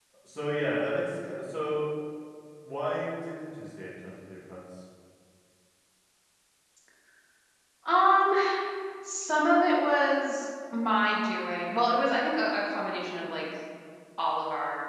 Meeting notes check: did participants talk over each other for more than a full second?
No

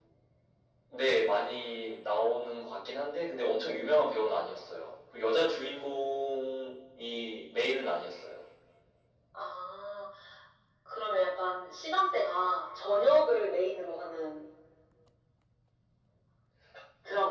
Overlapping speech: No

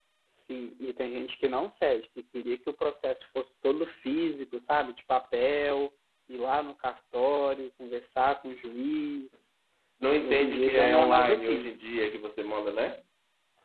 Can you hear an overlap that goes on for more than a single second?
Yes, from 10.2 s

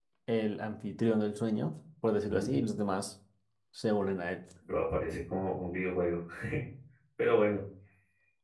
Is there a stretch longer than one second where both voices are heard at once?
No

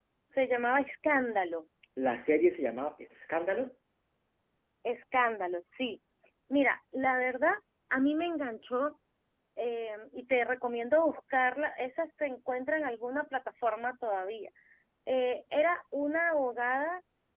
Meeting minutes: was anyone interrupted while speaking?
No

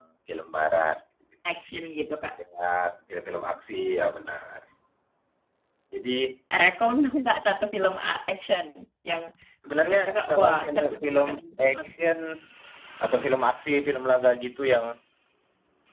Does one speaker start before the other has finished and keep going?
Yes, from 9.8 s

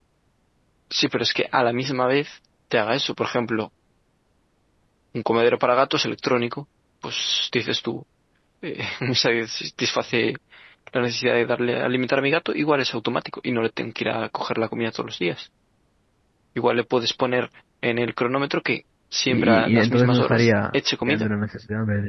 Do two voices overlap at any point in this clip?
Yes, from 19.3 s

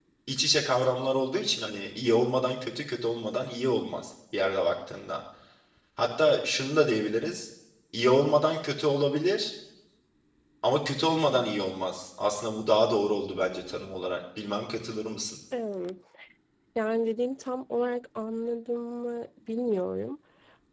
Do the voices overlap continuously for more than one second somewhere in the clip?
No

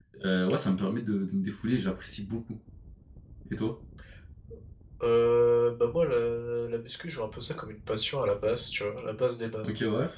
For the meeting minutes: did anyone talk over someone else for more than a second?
No

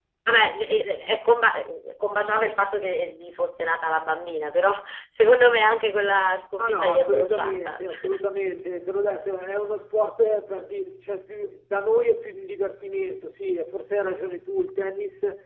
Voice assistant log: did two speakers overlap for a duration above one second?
Yes, from 6.6 s

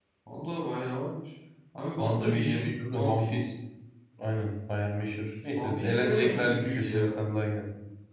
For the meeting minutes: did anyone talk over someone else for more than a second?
Yes, from 1.9 s

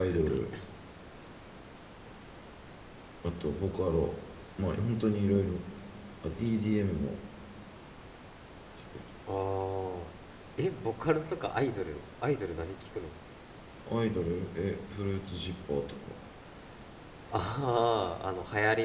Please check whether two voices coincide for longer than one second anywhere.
No

